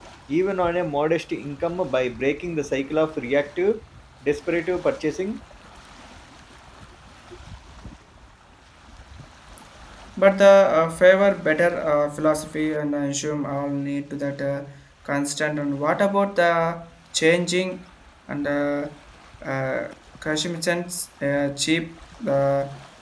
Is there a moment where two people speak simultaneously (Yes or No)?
No